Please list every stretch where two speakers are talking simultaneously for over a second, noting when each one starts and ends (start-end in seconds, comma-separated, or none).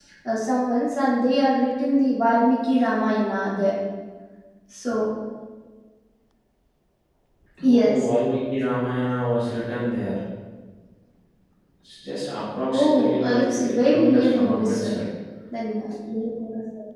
12.7-14.9